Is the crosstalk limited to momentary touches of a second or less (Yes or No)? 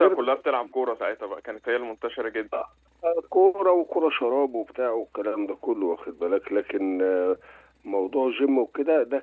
Yes